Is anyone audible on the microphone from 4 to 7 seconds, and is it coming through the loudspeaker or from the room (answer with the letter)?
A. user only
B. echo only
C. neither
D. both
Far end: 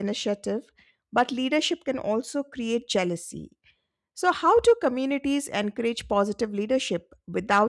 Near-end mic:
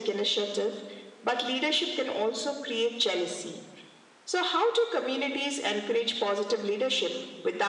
B